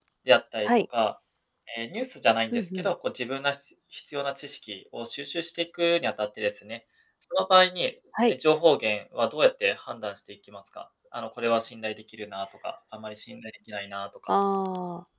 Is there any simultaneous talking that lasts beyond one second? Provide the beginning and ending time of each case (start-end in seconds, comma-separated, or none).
none